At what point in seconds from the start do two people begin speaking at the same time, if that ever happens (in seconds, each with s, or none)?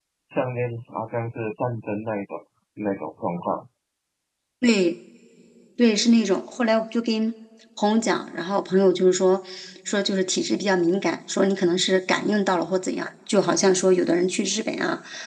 none